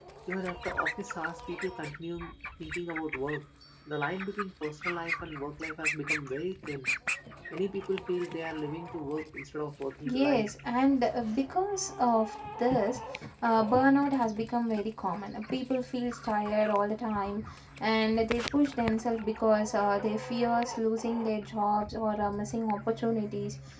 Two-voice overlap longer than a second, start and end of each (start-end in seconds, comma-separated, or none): none